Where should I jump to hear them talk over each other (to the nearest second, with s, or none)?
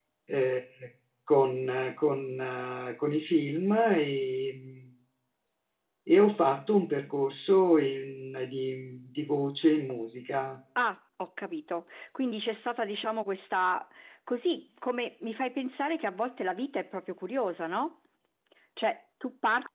none